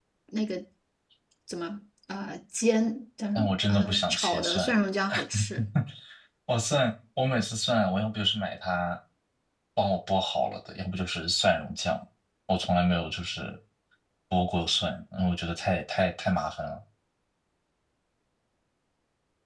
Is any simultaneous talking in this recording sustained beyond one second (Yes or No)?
Yes